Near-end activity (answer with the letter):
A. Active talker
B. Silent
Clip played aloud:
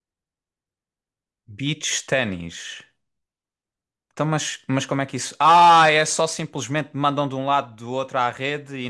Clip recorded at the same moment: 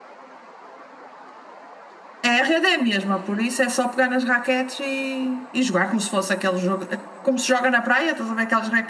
A